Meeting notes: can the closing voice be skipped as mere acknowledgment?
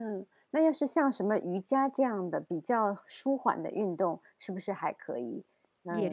No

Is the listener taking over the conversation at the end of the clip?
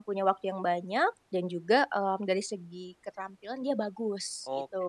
Yes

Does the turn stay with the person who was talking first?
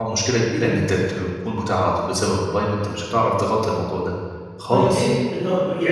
No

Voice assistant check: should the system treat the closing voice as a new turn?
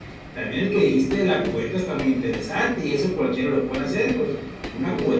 No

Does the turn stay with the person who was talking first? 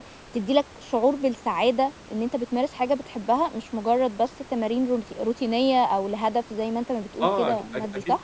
No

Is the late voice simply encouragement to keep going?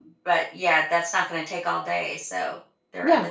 No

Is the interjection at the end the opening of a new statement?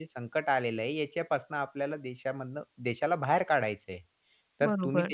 No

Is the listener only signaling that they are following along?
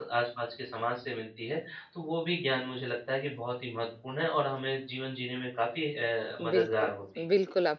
No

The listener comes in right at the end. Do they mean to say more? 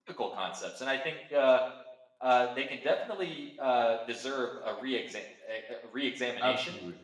No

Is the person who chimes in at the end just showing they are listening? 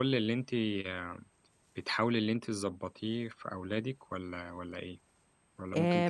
No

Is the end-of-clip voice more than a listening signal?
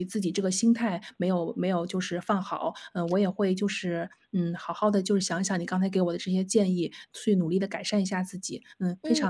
Yes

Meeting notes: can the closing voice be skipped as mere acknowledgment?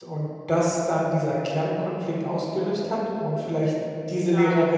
No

